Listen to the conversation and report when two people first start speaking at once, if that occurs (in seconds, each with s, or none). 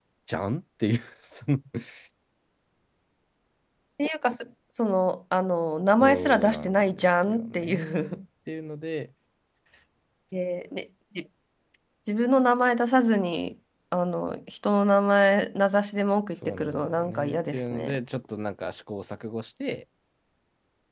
6.0 s